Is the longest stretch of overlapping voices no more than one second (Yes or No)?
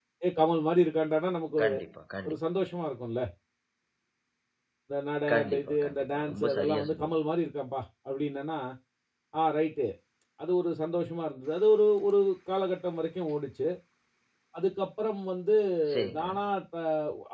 No